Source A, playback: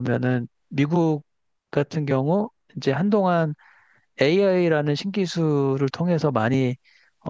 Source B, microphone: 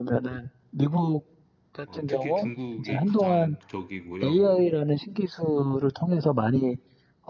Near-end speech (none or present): present